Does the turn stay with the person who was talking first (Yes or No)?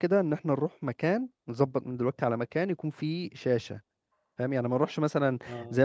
Yes